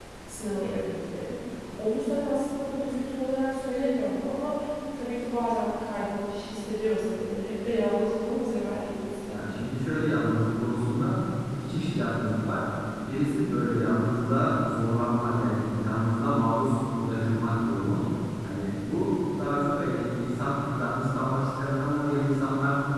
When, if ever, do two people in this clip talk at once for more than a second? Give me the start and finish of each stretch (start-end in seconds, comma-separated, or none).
none